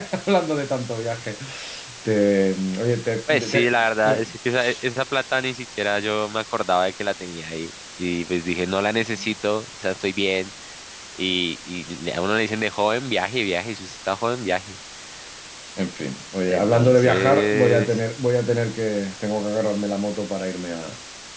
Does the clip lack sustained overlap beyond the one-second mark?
No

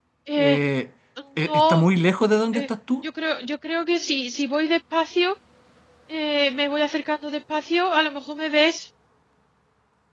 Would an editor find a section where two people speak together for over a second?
No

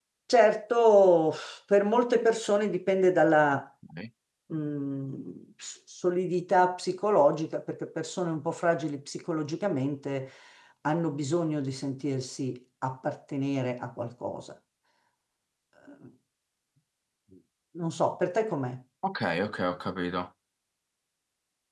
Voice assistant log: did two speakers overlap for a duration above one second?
No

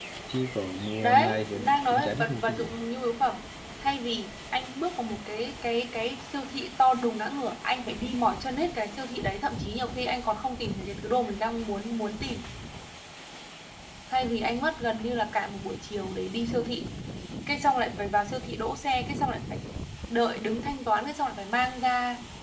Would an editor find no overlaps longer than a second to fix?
No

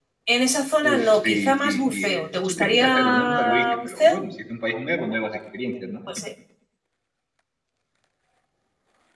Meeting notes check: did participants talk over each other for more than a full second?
Yes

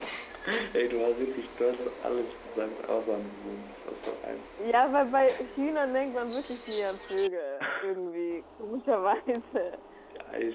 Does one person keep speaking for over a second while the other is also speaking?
No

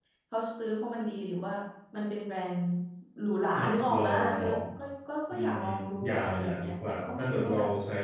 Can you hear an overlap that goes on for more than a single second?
Yes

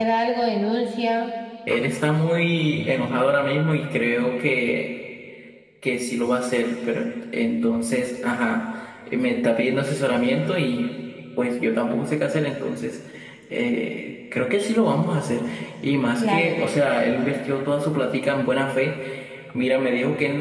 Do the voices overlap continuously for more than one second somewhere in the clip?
No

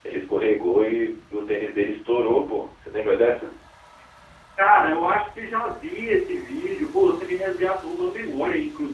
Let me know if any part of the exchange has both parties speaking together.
No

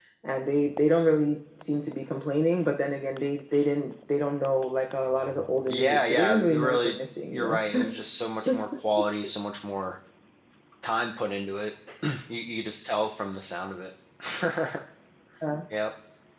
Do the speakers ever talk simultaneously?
Yes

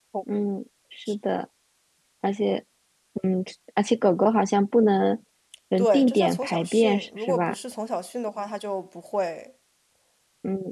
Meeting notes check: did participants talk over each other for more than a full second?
Yes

